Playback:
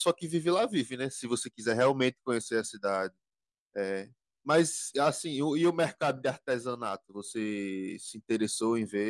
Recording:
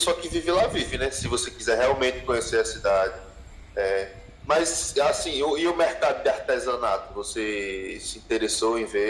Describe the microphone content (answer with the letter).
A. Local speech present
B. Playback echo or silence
B